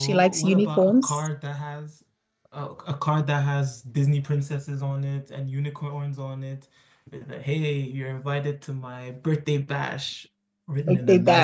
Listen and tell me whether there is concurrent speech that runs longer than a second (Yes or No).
Yes